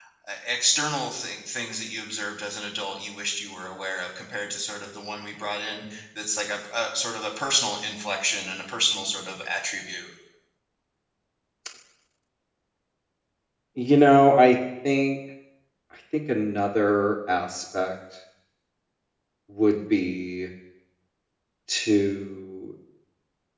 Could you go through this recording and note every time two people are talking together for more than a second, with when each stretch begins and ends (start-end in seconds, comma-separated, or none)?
none